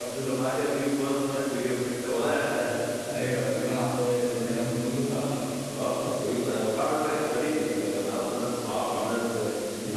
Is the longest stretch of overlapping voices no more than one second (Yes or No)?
Yes